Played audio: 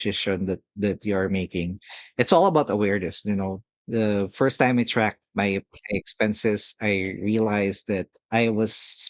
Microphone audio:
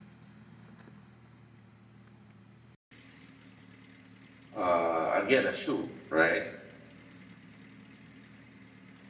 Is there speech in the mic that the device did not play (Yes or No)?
Yes